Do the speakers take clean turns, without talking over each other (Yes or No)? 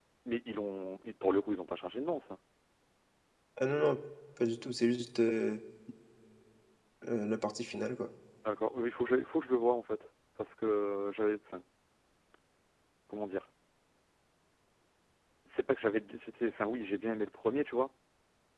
Yes